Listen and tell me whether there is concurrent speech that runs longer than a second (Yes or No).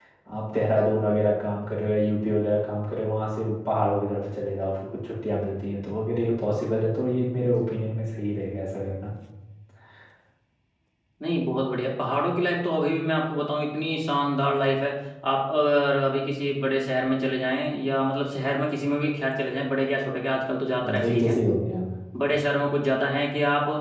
No